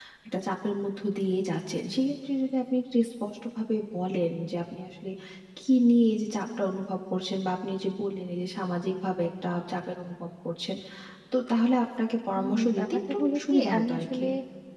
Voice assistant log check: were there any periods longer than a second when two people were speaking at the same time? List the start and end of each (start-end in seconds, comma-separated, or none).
12.3-14.2